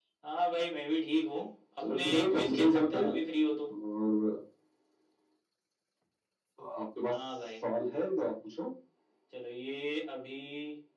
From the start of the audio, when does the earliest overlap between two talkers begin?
1.9 s

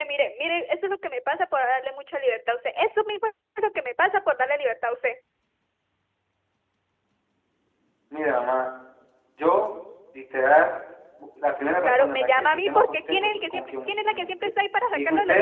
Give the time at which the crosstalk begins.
11.8 s

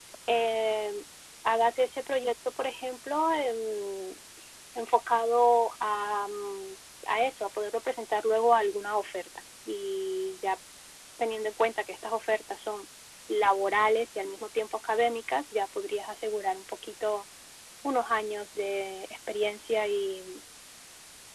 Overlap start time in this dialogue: none

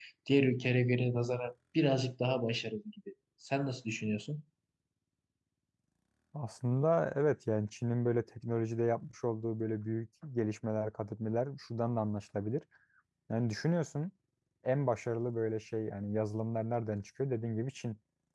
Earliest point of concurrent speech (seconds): none

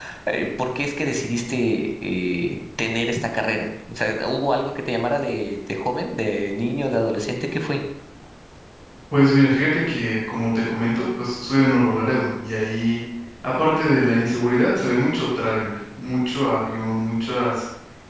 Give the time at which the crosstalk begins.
none

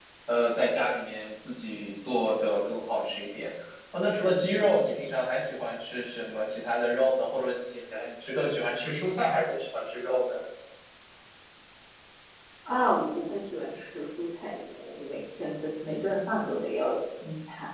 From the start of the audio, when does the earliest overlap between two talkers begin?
none

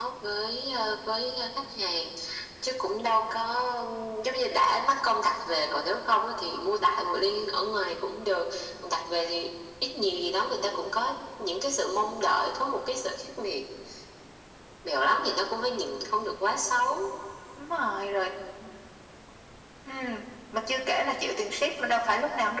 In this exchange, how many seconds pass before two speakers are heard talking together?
none

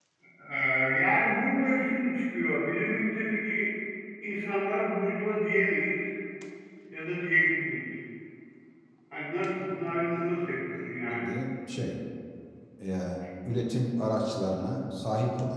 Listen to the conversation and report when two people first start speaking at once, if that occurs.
9.6 s

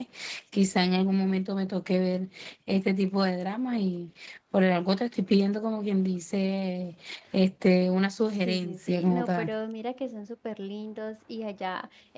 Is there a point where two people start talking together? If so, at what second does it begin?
8.3 s

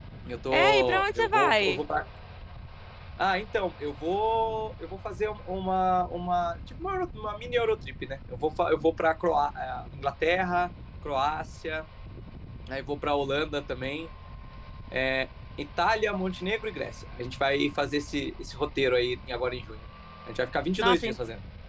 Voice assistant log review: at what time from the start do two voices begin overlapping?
0.5 s

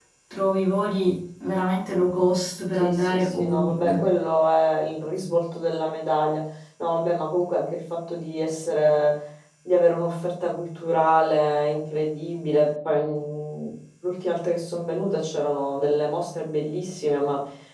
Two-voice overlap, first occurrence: 2.7 s

